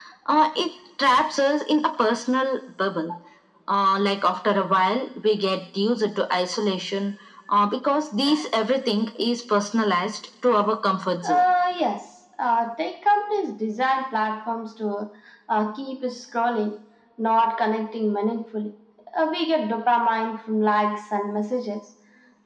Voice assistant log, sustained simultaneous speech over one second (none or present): none